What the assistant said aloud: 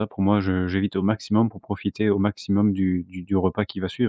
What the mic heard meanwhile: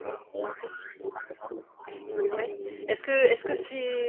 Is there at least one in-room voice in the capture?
Yes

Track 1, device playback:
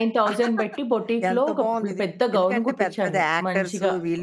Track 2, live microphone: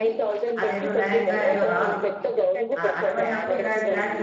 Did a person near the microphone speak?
Yes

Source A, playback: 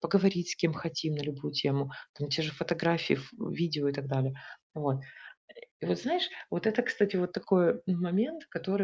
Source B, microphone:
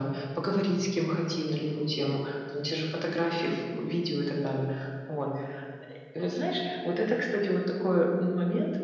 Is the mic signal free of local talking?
Yes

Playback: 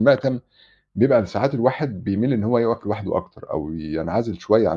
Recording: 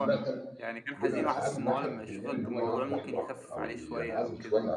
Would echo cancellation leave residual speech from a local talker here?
Yes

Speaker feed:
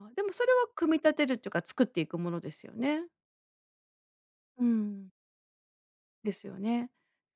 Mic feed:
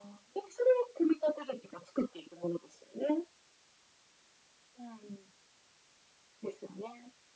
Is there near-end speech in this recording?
No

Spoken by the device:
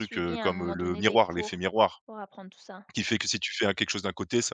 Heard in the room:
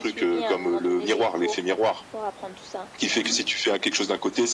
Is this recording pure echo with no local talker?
No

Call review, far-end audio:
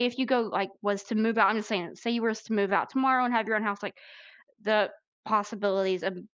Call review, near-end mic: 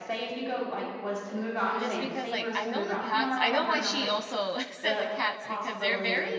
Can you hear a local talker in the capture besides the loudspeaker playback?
Yes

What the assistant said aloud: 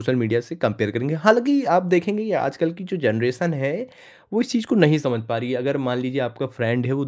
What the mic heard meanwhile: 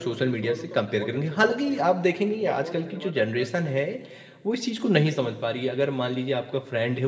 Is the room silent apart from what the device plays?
No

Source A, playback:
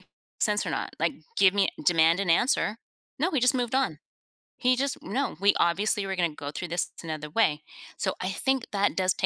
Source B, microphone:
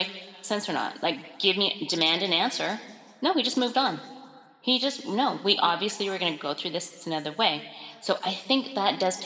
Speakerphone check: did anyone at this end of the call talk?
No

